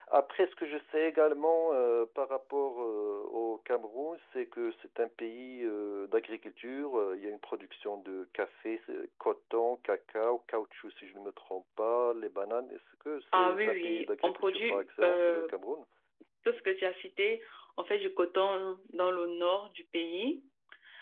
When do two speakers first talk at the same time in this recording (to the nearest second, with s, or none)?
13 s